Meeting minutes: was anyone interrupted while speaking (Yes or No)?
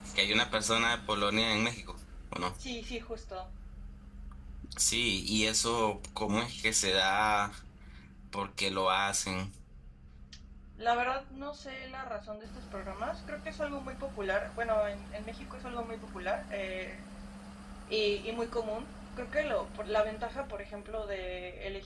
No